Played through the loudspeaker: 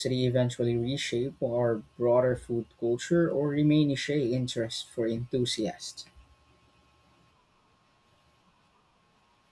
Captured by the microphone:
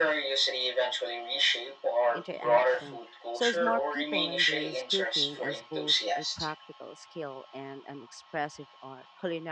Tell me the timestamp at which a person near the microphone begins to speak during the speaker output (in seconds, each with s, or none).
2.1 s